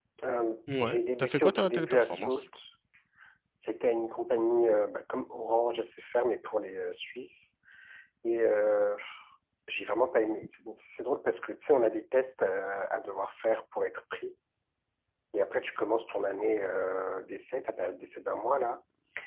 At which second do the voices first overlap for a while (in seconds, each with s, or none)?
0.8 s